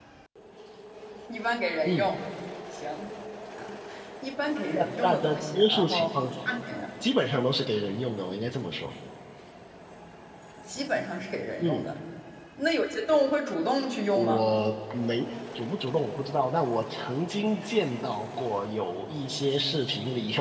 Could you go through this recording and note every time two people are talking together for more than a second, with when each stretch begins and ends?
4.7-6.0

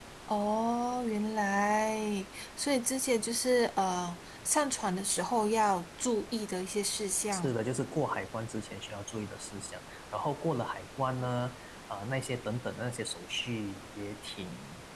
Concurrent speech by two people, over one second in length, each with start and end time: none

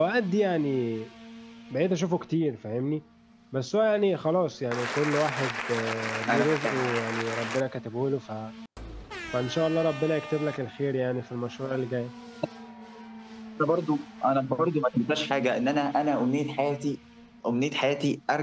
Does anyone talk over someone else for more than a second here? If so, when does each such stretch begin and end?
none

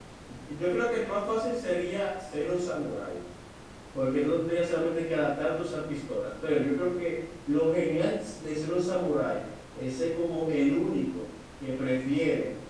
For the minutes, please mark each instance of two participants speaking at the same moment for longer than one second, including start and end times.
none

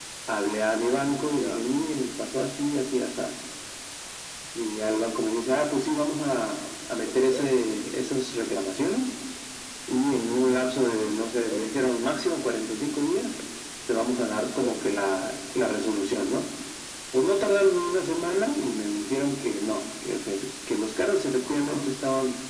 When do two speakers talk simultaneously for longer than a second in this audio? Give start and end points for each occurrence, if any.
none

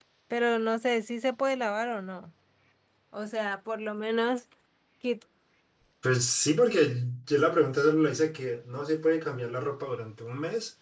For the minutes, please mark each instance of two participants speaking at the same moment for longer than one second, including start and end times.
none

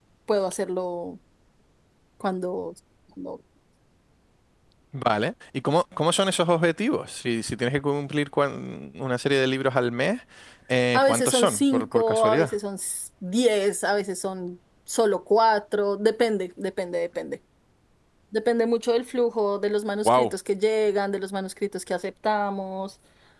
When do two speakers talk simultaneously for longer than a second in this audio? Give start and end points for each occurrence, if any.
10.9-12.5

